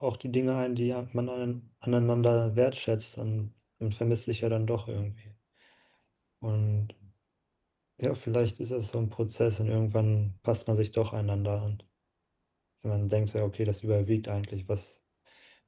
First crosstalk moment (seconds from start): none

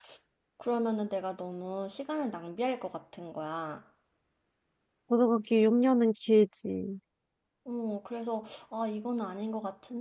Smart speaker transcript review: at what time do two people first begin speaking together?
none

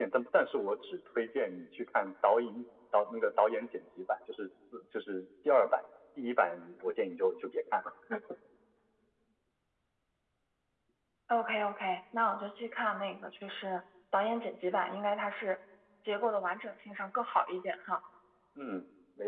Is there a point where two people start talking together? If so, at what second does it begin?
none

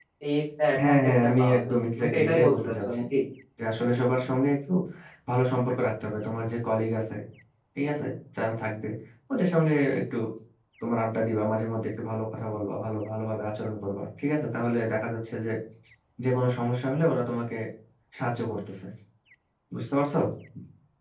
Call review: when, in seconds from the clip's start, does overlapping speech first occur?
0.8 s

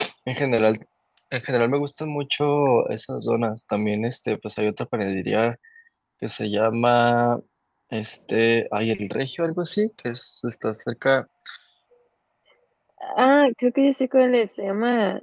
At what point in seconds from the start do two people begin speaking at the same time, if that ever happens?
none

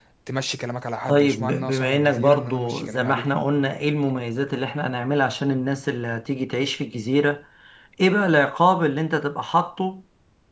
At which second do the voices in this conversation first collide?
1.1 s

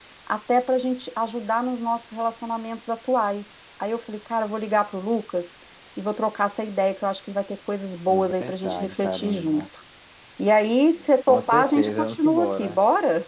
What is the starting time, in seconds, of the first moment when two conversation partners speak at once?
8.4 s

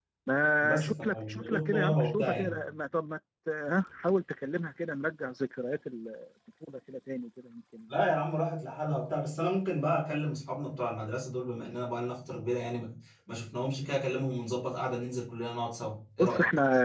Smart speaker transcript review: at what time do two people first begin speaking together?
0.8 s

